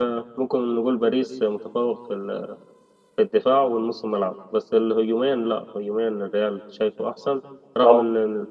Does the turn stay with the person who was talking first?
Yes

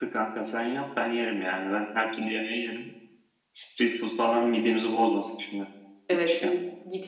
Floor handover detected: Yes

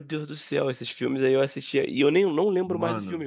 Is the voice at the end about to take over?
No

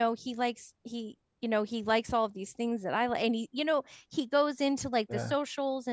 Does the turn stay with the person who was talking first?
Yes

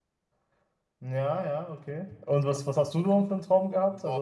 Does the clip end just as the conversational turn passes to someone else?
Yes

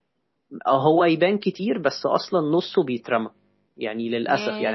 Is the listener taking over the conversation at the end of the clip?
No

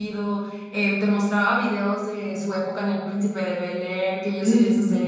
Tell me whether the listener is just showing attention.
Yes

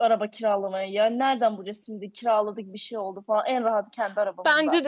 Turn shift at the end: Yes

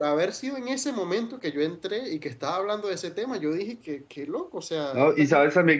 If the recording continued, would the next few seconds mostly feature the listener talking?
Yes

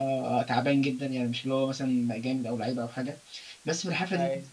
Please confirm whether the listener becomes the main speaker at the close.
No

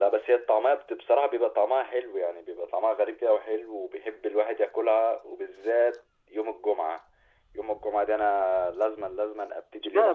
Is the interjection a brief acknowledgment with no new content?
No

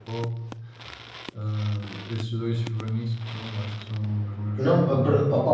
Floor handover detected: Yes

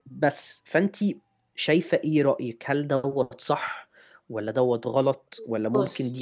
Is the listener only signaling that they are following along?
Yes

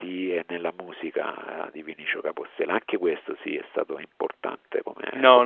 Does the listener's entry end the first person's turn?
Yes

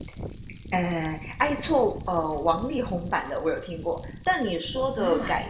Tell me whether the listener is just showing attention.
Yes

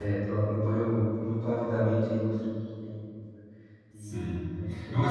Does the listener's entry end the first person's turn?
Yes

